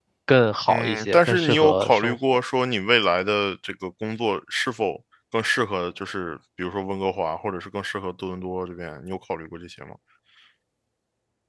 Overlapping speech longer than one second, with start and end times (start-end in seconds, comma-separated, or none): 0.7-2.2